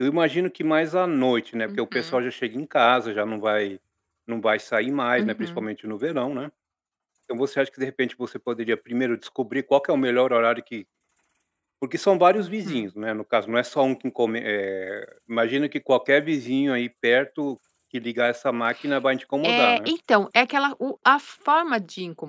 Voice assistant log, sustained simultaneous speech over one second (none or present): none